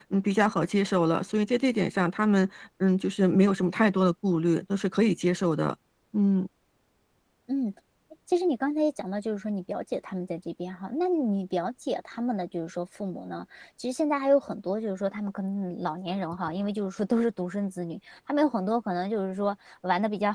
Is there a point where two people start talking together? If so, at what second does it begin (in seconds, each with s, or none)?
none